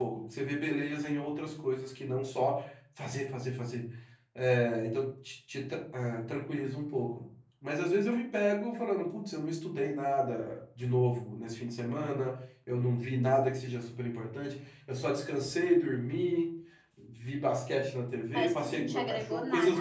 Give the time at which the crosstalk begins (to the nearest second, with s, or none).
18 s